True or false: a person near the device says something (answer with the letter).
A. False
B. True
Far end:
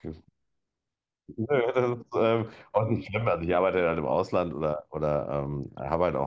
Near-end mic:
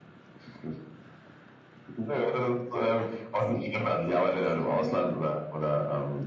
B